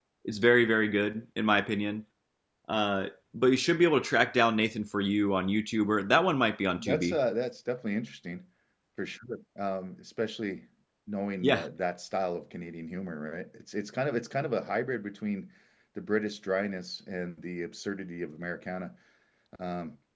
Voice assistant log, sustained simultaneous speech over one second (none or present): none